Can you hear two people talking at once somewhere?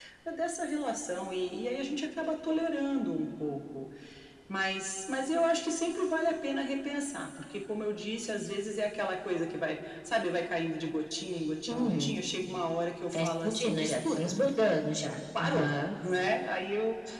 Yes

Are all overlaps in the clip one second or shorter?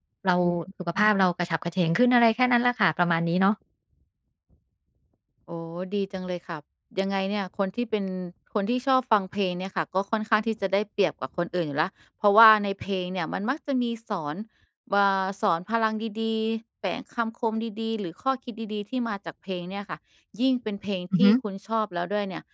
Yes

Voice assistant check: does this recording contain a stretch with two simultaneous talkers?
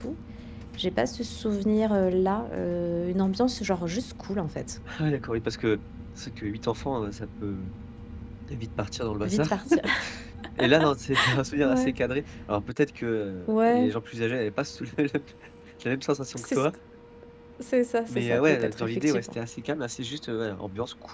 Yes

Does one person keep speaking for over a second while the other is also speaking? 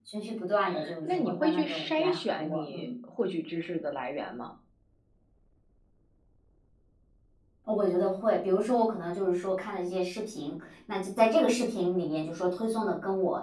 Yes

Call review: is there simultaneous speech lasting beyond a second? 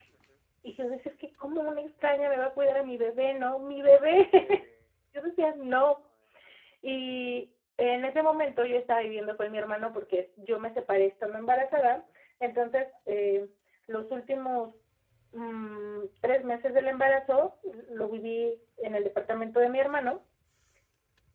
No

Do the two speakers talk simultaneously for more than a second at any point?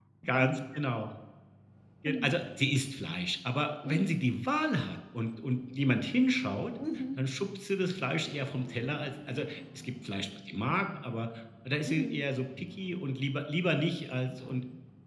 No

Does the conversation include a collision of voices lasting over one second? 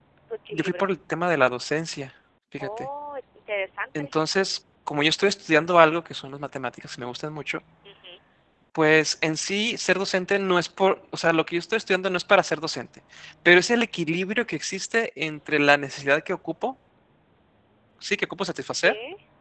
No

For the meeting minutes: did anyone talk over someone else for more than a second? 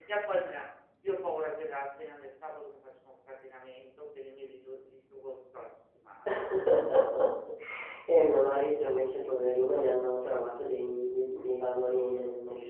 No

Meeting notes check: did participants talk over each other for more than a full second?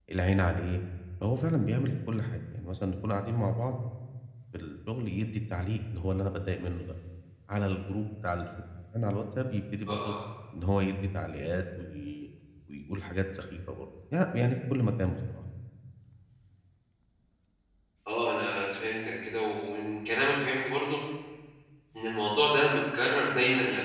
No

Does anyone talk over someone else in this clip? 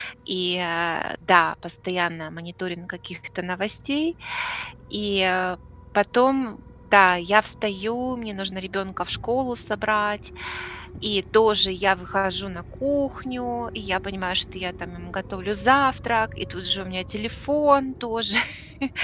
No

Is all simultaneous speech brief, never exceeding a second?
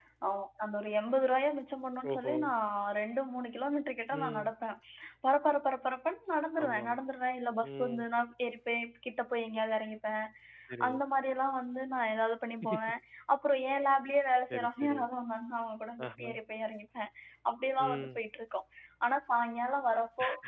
Yes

